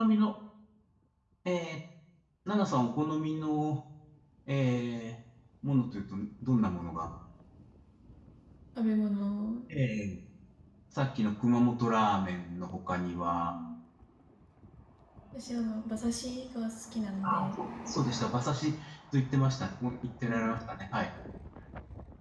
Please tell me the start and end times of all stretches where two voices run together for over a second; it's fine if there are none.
none

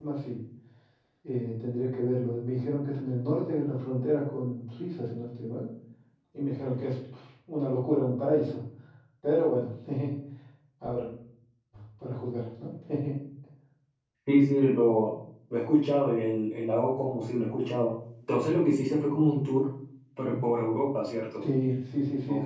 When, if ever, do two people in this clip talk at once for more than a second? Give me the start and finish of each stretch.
none

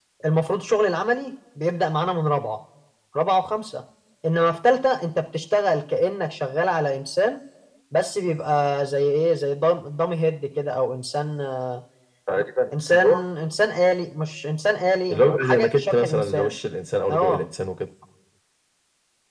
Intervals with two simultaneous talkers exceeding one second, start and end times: 15.1-16.5

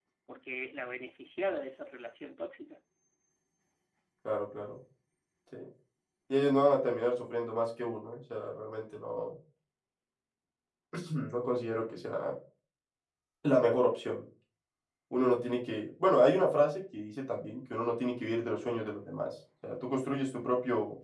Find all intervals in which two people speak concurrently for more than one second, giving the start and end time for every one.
none

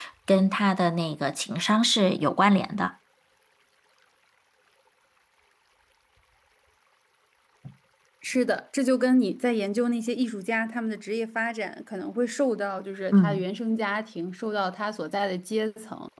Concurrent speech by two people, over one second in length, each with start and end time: none

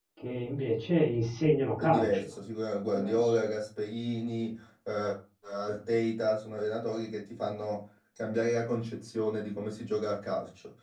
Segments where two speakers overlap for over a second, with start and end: none

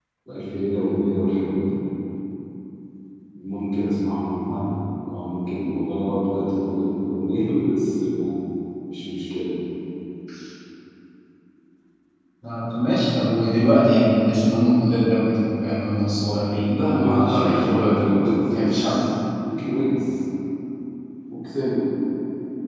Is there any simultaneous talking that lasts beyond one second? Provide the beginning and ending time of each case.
16.7-19.0

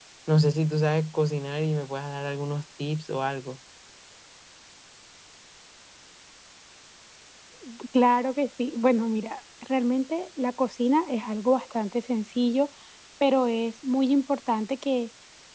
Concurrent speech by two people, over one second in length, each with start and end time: none

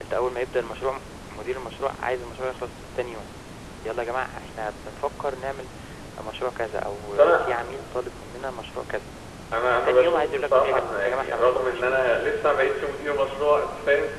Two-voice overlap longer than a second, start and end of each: 9.8-12.0

